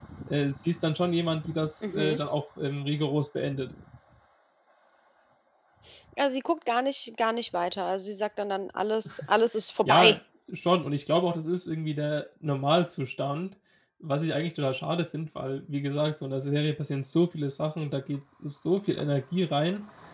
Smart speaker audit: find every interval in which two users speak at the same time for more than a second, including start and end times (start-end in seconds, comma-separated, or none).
none